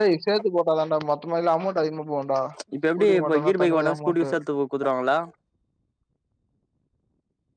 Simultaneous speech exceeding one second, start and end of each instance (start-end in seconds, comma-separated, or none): 3.0-4.3